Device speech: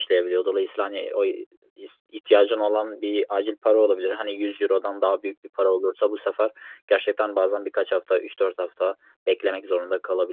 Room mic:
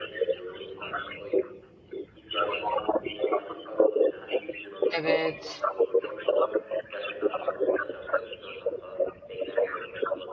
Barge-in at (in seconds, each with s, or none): 4.9 s